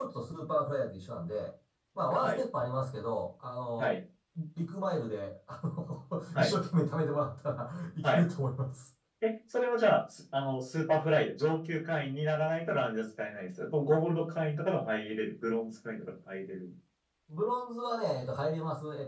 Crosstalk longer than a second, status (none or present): none